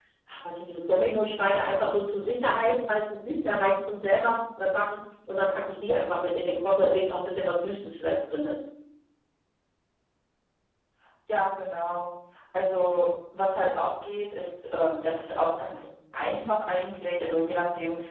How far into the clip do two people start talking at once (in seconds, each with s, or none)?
none